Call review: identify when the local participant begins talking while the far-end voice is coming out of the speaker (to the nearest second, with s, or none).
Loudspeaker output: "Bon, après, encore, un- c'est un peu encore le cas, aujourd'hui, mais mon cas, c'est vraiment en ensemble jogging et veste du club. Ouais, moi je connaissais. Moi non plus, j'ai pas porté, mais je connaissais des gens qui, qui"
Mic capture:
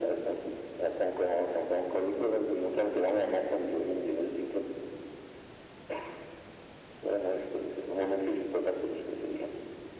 none